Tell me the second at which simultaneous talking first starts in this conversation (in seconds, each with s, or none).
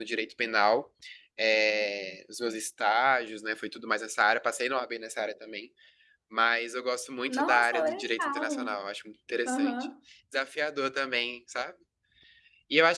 7.3 s